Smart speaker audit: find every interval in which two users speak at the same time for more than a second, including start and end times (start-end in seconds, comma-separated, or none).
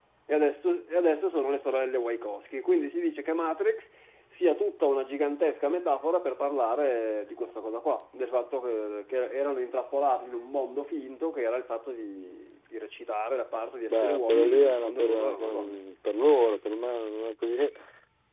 13.9-15.8